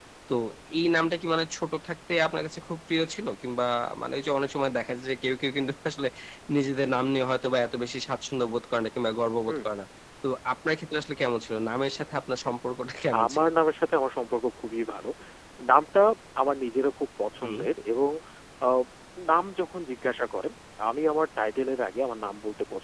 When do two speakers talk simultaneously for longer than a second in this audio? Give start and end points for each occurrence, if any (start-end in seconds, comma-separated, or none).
none